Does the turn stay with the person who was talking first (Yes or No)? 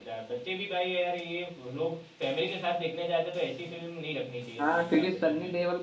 No